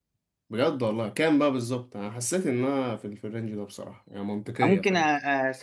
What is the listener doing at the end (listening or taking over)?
taking over